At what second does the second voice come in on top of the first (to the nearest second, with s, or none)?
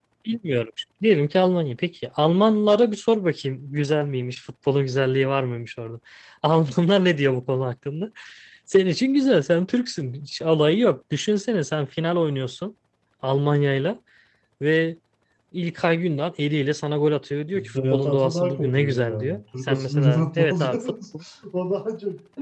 18 s